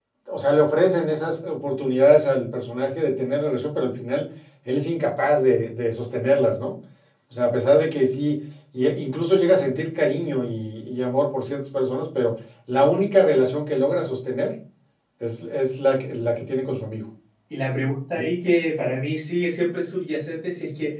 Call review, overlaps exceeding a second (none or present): none